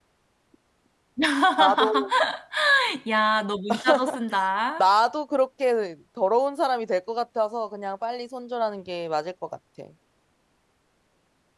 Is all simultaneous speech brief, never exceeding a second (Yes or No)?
Yes